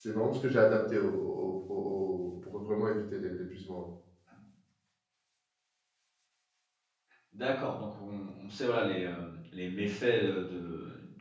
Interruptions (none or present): none